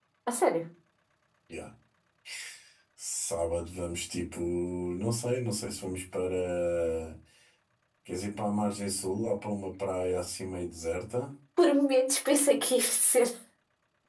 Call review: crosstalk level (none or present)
none